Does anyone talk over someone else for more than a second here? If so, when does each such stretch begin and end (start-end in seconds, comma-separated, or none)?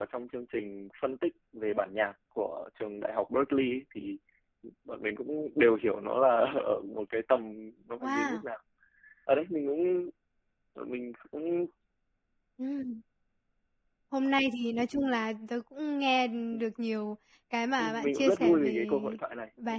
17.8-19.0